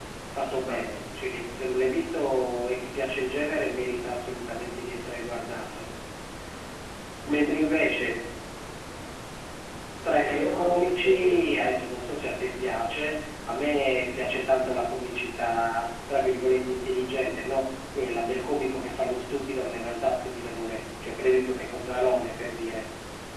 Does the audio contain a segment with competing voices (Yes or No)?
Yes